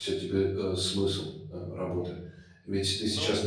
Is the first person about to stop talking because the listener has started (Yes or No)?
No